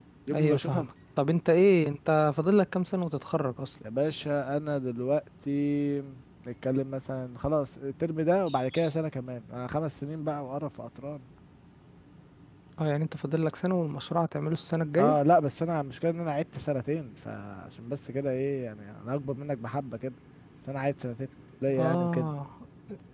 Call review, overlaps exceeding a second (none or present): none